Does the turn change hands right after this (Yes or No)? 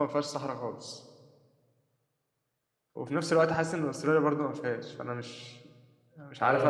Yes